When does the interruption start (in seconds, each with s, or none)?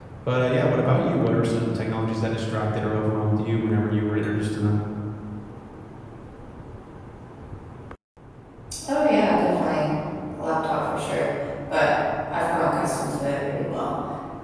none